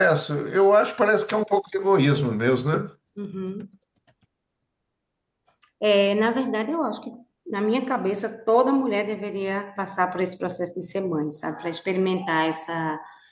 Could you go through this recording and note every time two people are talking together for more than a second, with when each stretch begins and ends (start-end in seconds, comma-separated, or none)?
none